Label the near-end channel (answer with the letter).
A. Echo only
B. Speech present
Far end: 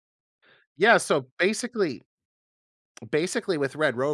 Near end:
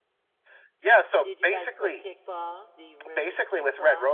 B